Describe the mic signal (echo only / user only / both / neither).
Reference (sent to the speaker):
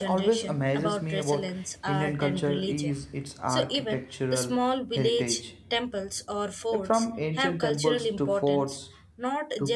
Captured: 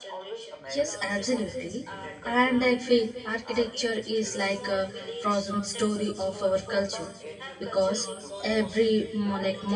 both